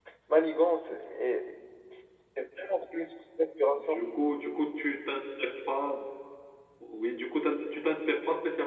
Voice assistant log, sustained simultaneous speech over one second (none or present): none